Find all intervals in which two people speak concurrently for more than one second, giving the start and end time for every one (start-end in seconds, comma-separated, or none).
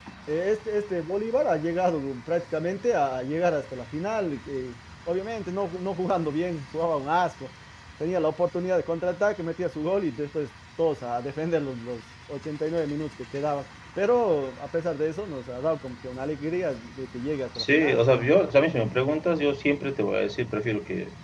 none